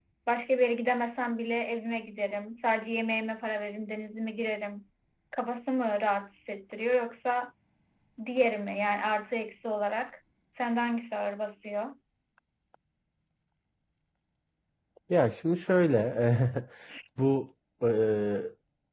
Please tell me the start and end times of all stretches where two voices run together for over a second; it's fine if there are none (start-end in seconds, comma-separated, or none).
none